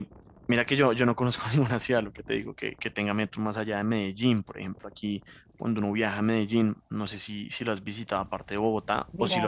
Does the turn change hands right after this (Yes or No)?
Yes